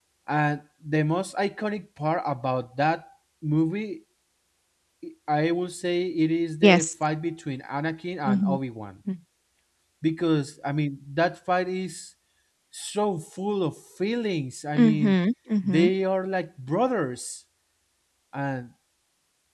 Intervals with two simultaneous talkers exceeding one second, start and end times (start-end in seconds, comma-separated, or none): none